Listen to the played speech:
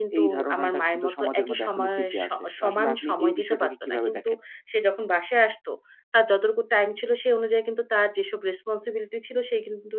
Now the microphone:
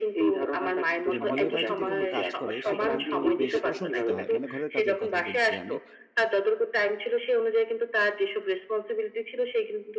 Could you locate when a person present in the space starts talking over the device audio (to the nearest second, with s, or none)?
1 s